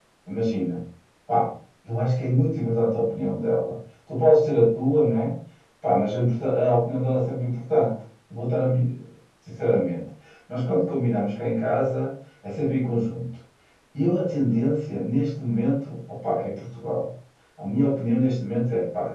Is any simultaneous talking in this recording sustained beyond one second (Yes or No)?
No